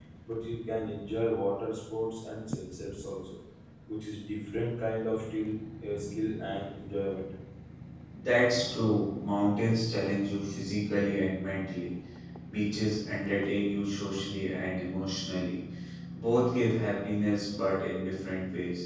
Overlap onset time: none

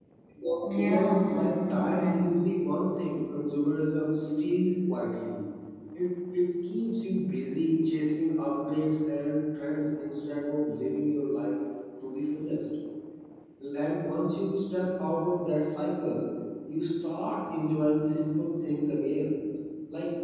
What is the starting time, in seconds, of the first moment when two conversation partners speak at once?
0.7 s

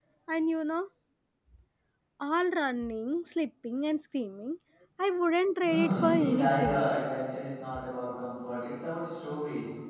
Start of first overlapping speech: 5.6 s

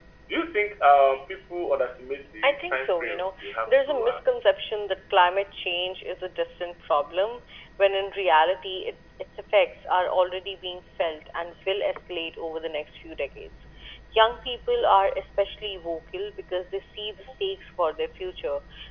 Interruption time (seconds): 2.4 s

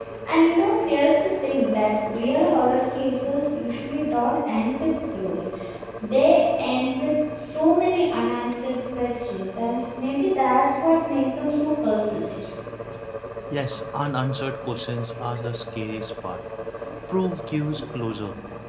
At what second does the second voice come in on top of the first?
none

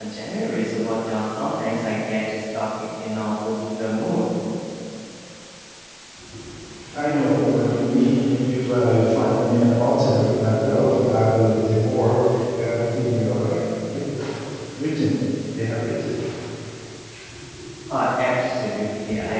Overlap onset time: none

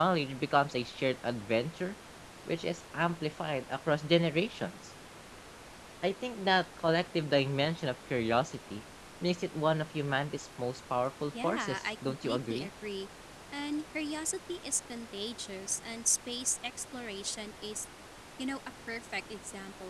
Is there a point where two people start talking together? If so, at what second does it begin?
11.3 s

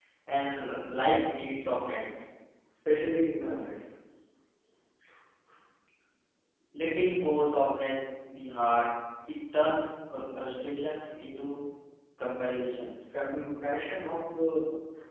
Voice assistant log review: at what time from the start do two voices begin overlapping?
none

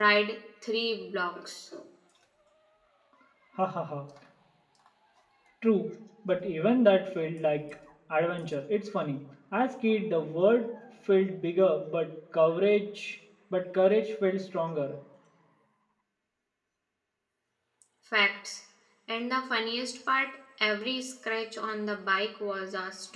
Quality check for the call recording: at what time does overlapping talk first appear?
none

